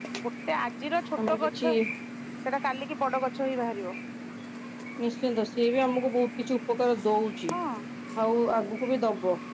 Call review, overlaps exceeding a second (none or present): none